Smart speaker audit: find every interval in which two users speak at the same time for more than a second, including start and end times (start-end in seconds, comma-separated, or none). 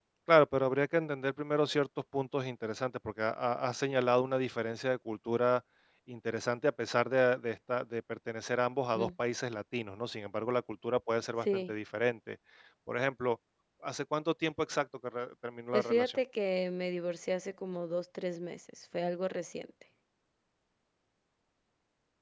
none